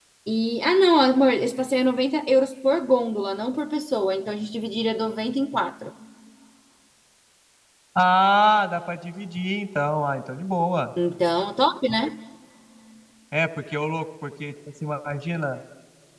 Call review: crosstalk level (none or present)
none